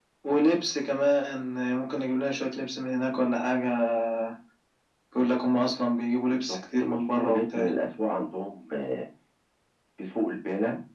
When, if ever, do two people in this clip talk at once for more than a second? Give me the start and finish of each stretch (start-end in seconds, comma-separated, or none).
6.2-7.7